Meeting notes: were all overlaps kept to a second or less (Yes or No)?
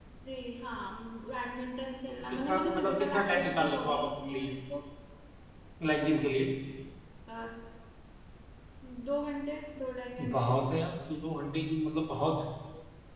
No